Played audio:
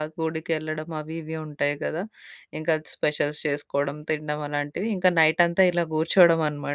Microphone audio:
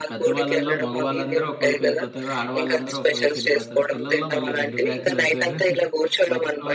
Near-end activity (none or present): present